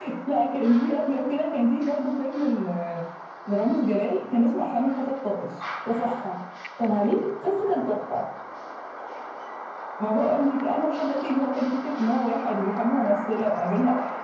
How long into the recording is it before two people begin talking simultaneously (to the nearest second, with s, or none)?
none